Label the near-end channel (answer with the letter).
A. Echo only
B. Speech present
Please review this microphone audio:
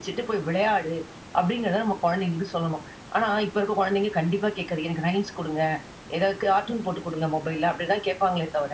A